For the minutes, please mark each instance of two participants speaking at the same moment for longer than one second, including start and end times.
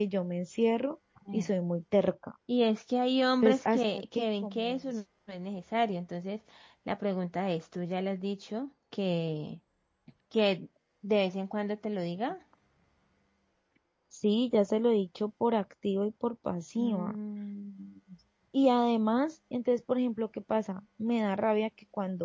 3.4-4.8

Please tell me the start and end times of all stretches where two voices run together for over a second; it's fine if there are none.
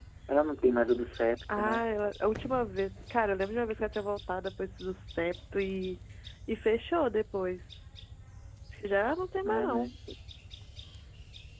none

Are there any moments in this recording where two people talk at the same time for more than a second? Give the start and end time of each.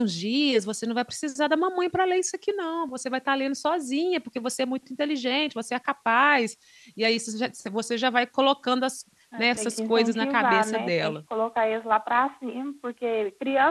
9.4-11.2

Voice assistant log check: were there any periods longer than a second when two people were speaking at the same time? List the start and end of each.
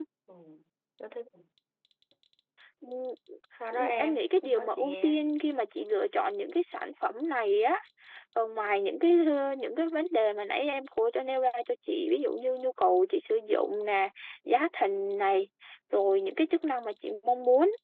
3.7-5.2

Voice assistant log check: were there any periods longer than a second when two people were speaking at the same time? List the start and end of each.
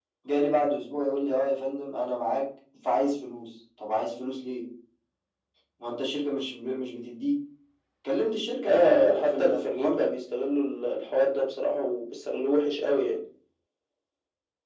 8.7-10.1

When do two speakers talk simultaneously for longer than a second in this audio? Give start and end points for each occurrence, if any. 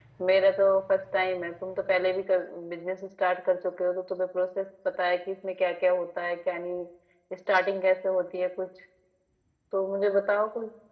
none

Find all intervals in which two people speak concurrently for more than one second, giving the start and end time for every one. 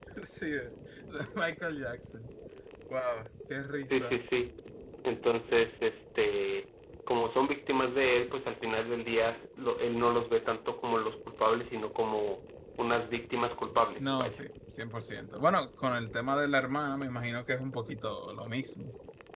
none

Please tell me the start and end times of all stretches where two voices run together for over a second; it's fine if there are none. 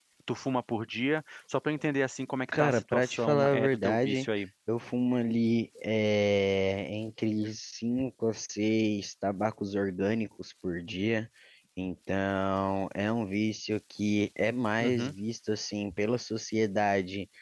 2.6-4.3

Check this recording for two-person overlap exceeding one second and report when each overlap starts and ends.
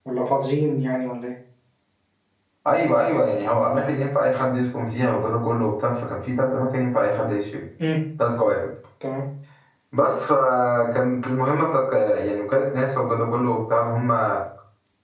none

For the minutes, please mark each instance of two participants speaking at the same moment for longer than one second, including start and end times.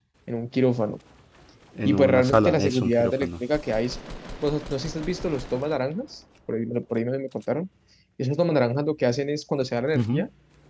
1.9-3.3

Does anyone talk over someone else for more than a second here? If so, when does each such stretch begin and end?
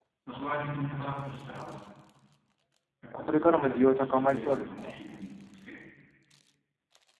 3.1-5.0

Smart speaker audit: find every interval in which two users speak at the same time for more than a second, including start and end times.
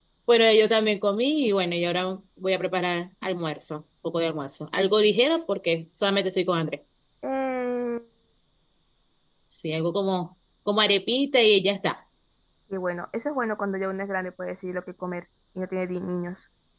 none

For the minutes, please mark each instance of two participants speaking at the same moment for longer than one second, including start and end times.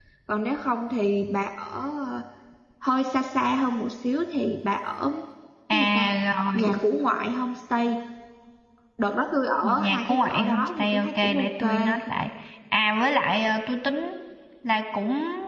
9.6-11.7

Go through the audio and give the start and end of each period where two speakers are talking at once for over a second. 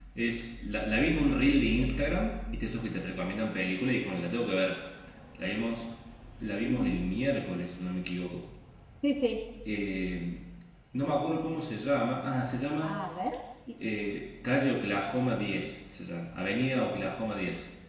none

